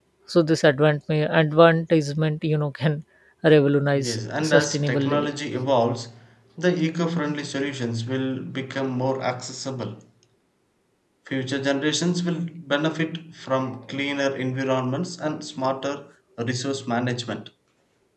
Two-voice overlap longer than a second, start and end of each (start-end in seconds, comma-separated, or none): 3.9-5.3